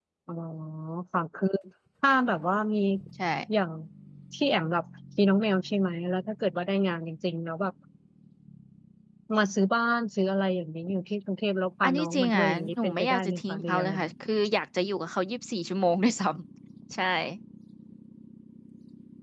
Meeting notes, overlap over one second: present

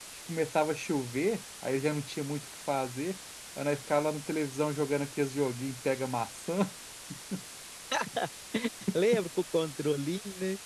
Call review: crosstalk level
none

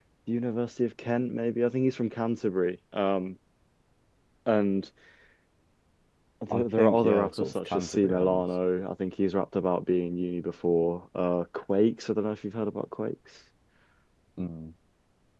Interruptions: present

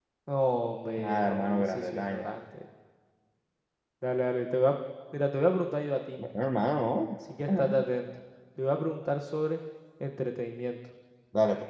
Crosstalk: present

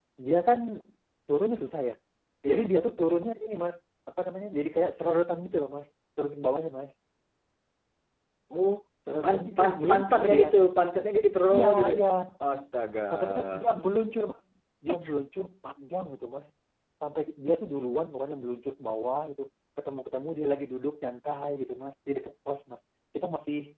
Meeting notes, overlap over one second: present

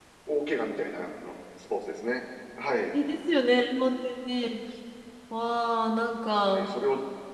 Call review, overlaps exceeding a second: none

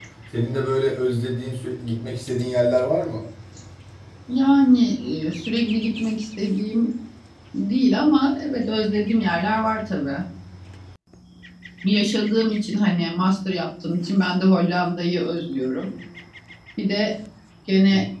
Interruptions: none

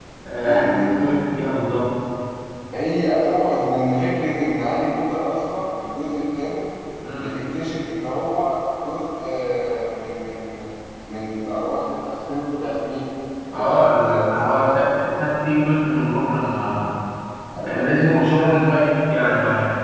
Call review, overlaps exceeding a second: present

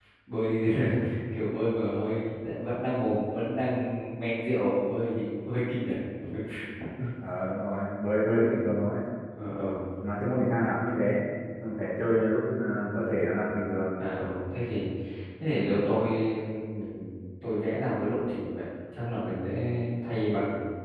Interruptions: none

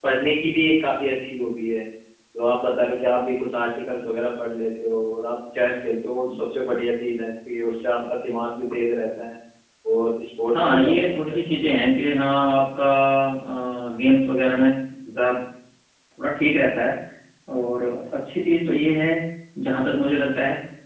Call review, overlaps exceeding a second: present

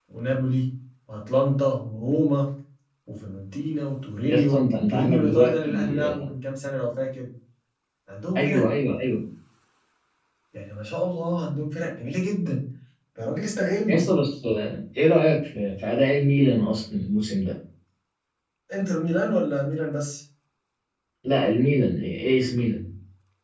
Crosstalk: present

